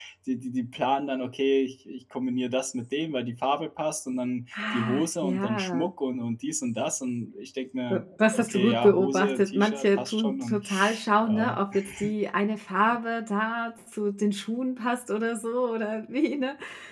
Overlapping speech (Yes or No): Yes